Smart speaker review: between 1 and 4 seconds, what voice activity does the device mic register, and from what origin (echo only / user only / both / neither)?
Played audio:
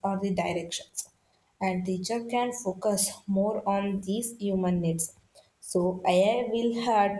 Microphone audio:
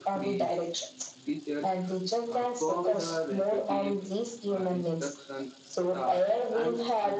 both